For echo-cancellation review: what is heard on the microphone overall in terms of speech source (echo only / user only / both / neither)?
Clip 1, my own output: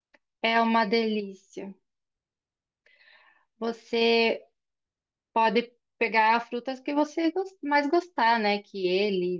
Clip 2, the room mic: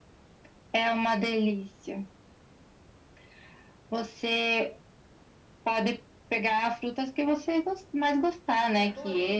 both